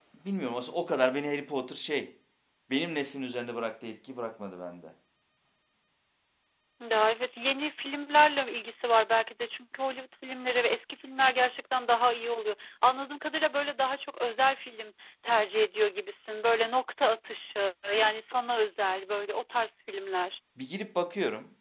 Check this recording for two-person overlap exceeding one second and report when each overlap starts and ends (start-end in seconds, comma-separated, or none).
none